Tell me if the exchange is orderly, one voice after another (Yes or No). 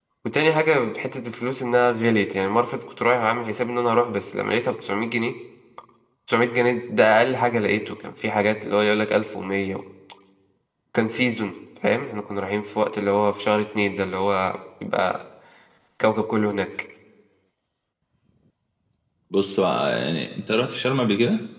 Yes